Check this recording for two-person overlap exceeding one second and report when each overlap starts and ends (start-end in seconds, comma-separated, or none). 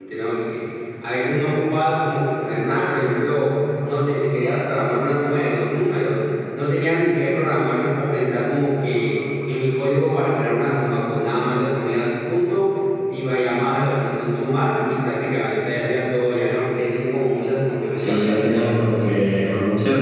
18.0-19.5